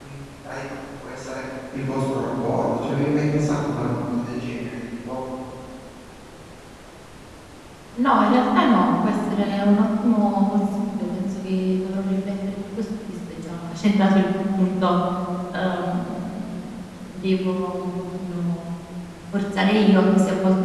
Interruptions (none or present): none